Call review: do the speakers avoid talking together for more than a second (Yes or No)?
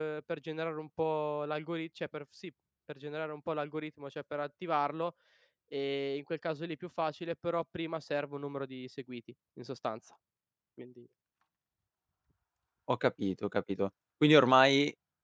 Yes